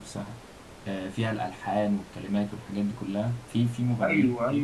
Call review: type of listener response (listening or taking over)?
taking over